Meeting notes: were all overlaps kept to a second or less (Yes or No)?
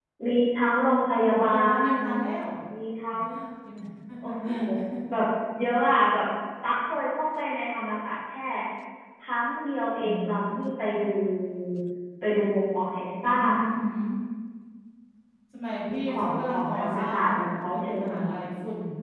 No